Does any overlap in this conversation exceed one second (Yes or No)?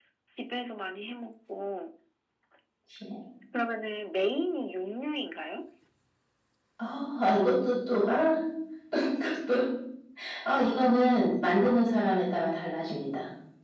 No